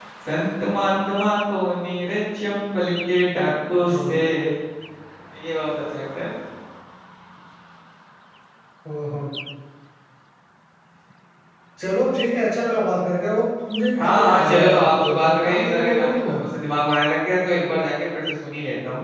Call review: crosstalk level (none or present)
present